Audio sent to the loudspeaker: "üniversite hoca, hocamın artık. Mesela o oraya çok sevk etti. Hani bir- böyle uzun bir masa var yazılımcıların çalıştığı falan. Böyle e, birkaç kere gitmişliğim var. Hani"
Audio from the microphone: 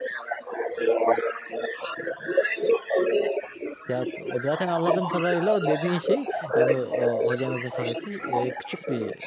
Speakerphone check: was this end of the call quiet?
No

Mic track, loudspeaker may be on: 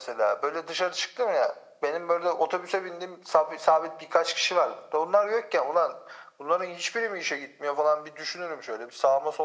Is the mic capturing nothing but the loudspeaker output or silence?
Yes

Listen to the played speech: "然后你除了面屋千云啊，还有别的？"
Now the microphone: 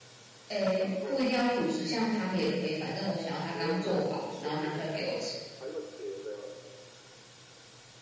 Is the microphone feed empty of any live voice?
No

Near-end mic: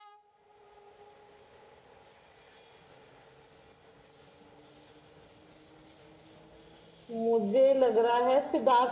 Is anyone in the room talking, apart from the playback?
Yes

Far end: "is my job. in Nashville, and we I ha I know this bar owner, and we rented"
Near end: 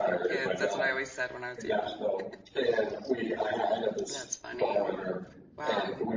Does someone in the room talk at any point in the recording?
Yes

